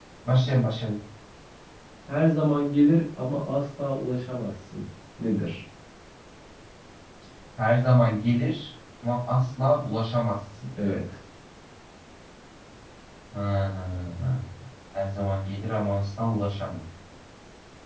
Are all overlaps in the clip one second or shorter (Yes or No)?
Yes